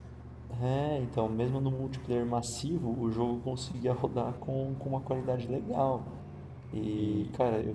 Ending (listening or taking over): listening